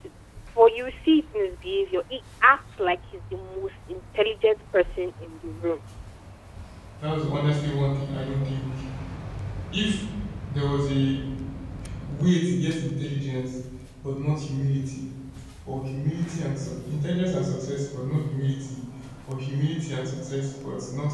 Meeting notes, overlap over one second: none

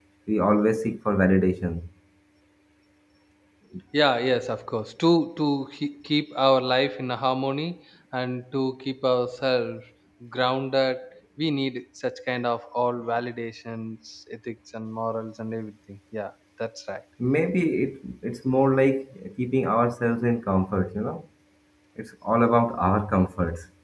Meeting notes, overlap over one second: none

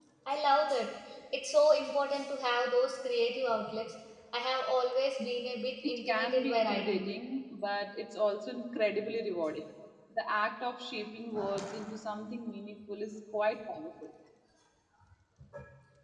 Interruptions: present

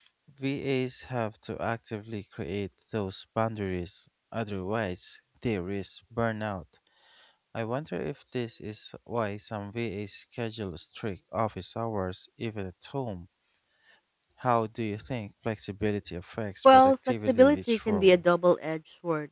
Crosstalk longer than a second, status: present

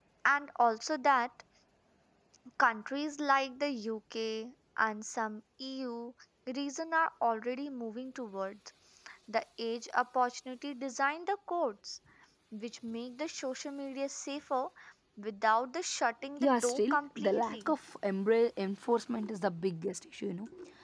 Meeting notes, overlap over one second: present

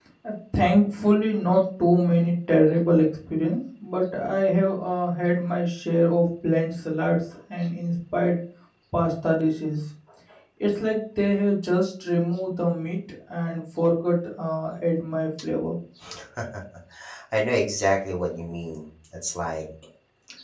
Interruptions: none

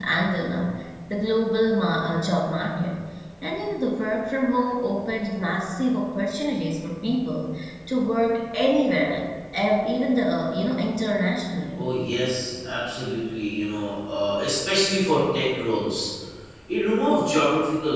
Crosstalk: none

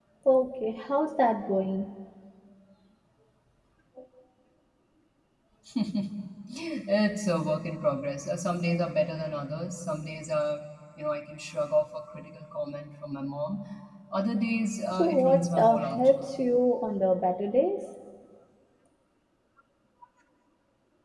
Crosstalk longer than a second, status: present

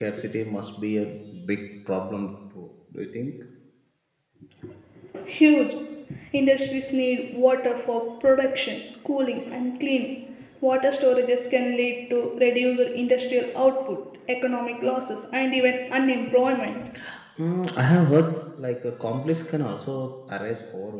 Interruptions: none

